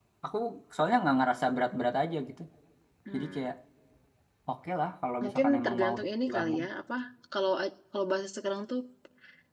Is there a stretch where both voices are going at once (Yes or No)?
Yes